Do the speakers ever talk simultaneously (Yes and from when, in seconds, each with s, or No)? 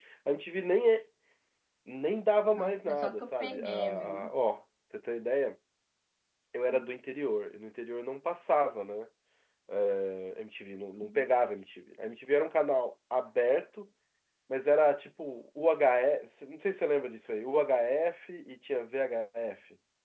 Yes, from 2.6 s